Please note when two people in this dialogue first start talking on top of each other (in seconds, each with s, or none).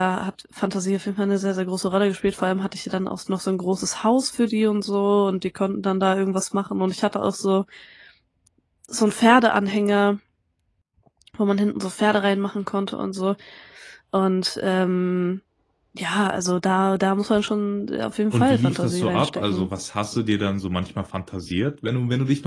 18.3 s